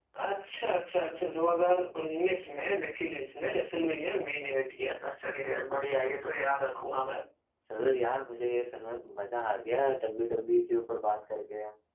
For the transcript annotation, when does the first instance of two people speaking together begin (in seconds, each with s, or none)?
none